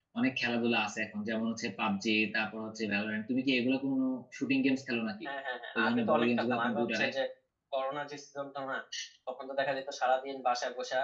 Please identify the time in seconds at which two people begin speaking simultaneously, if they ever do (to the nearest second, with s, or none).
6 s